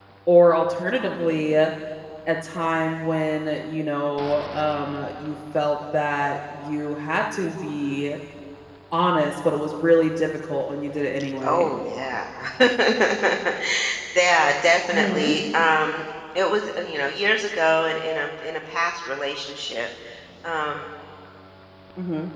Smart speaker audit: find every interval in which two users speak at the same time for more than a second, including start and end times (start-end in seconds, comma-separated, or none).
none